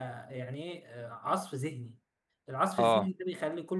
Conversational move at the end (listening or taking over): listening